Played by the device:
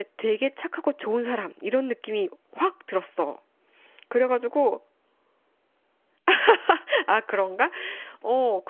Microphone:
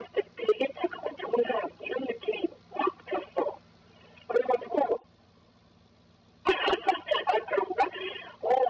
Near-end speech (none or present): none